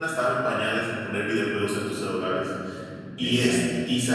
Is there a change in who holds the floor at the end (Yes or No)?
No